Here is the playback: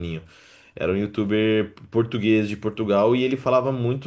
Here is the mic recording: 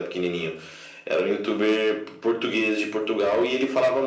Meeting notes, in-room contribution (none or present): none